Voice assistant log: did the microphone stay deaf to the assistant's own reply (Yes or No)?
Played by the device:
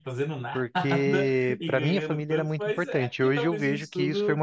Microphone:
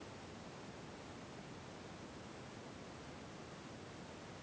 Yes